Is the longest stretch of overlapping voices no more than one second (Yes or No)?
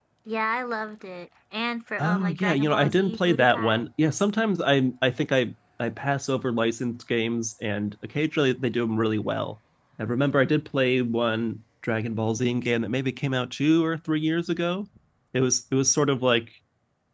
No